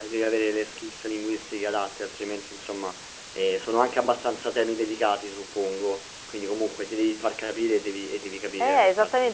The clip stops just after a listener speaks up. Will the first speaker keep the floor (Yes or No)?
No